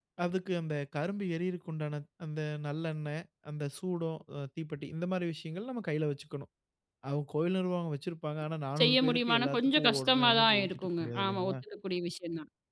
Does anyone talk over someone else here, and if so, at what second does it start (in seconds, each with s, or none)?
8.8 s